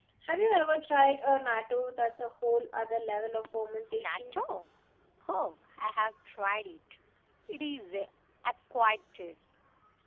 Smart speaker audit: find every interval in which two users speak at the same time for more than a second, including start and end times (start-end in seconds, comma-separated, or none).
none